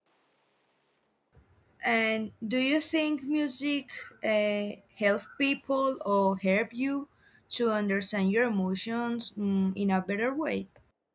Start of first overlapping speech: none

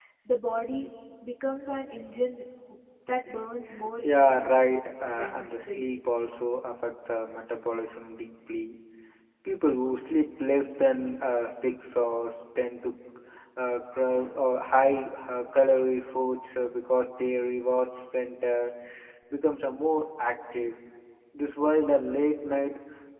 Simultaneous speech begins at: 4.0 s

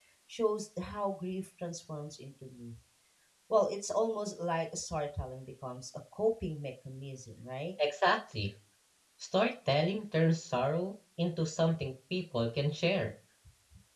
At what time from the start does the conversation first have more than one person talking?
none

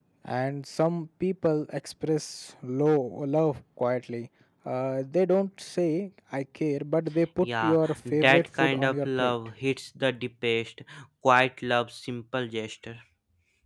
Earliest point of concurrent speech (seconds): 7.4 s

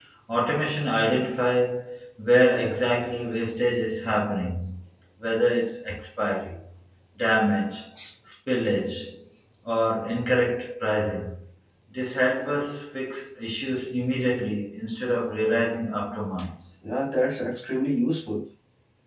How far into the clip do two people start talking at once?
none

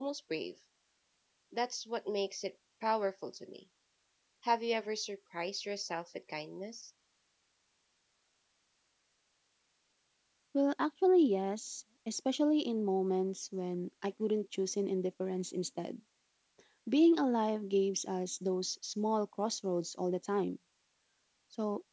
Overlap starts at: none

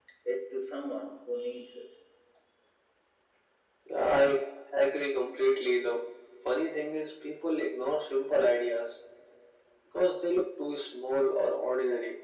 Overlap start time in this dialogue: none

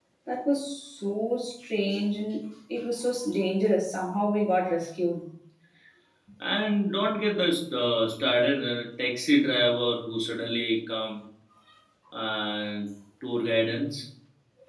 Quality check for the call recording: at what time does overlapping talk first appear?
none

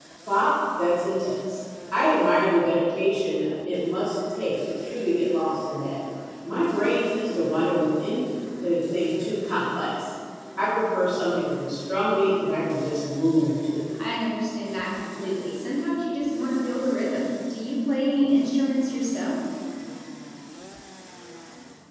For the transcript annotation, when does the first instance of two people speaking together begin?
none

